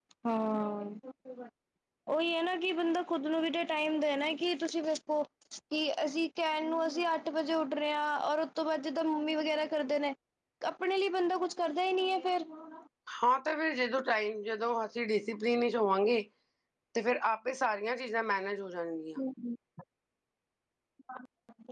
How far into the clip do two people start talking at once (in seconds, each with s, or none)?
none